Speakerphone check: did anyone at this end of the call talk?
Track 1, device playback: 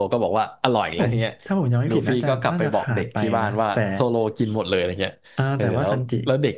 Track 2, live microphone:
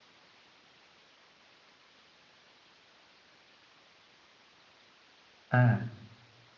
Yes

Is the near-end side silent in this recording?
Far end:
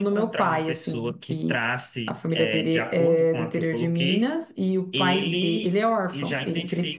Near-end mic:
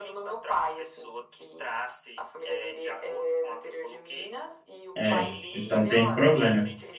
No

